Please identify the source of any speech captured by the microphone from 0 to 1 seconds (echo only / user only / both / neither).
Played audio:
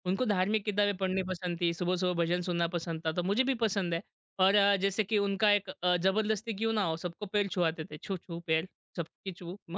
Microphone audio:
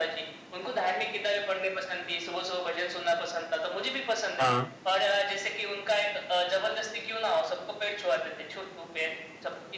echo only